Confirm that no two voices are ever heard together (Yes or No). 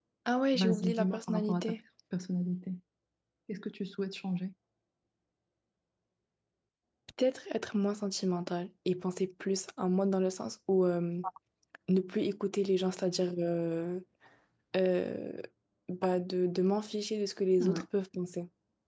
No